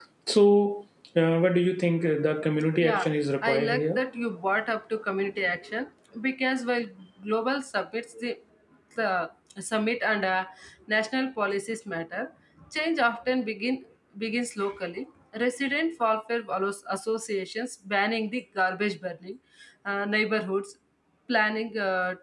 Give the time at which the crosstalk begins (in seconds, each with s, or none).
2.8 s